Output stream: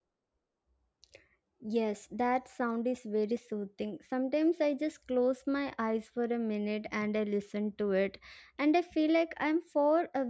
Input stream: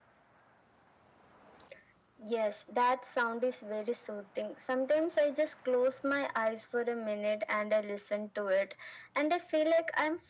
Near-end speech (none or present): none